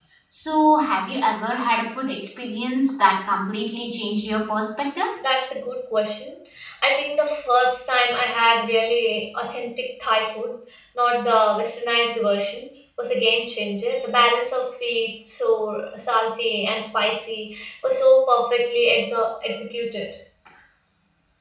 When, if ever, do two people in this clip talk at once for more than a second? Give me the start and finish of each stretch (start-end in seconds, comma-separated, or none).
none